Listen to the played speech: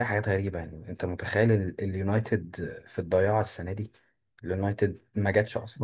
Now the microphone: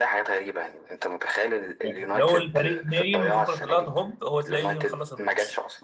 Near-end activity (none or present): present